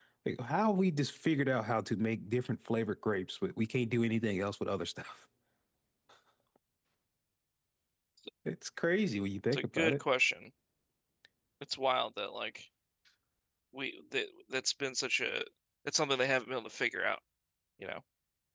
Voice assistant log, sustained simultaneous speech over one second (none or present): none